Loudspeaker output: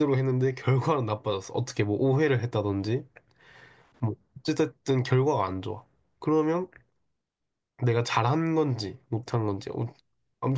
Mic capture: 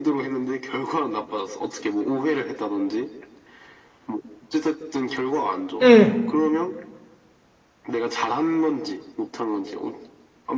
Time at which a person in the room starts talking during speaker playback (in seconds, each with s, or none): 5.8 s